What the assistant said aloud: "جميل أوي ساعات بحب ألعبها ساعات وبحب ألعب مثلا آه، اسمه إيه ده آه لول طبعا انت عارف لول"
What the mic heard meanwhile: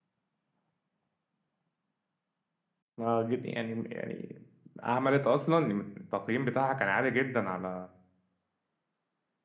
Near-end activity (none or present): present